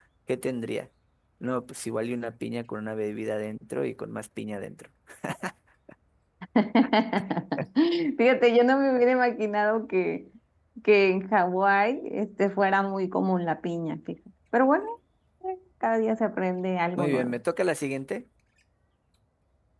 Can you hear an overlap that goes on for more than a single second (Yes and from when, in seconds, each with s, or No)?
No